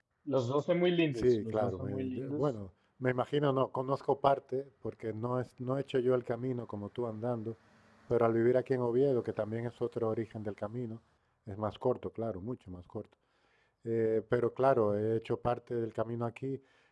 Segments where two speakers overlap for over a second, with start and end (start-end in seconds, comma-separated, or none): 1.2-2.4